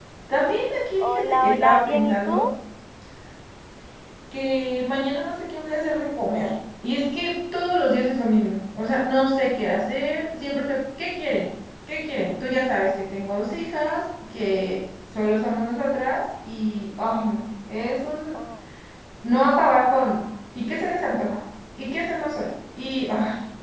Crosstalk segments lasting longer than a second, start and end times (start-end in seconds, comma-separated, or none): 1.0-2.4